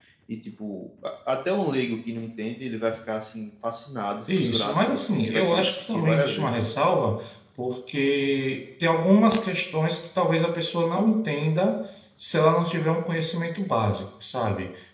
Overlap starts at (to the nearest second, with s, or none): 4 s